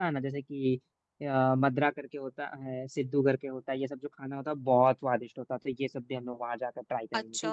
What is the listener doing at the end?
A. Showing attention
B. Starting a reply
B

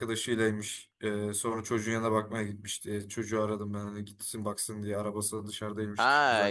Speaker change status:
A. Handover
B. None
A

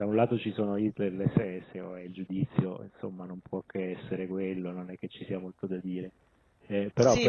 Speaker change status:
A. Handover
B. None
A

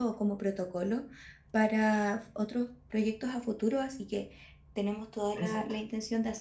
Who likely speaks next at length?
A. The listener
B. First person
B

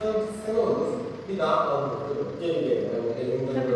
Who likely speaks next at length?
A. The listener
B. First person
B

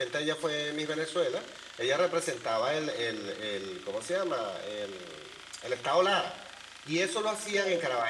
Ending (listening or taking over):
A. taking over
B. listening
B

